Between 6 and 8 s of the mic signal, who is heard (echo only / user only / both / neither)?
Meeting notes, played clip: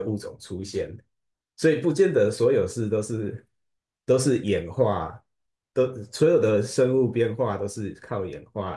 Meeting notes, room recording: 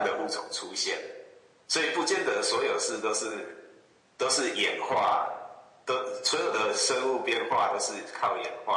echo only